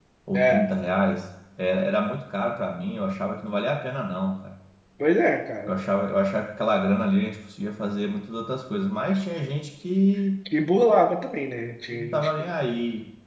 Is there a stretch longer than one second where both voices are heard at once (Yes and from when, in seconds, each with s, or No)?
No